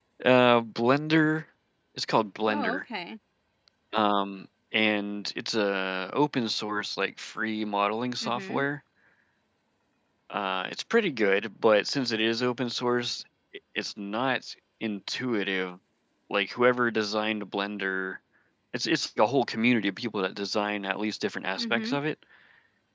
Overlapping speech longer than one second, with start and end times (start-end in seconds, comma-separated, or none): none